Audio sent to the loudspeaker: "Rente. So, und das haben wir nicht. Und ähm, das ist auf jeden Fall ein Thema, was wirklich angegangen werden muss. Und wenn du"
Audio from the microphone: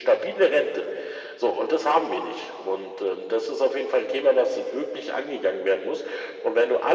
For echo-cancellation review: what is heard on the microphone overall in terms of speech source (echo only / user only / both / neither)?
echo only